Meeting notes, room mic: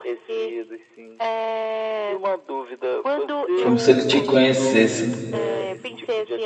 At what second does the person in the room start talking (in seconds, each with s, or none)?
3.6 s